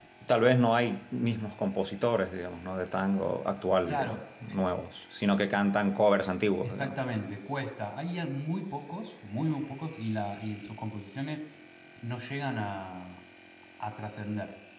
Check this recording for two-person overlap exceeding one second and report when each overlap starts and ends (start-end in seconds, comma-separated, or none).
none